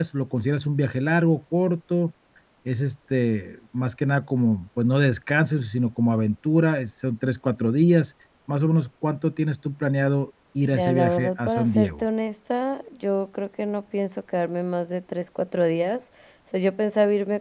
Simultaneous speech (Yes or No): Yes